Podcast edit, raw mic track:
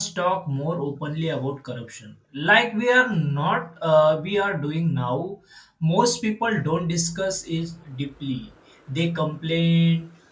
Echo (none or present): none